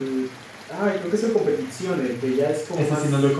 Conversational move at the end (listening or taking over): taking over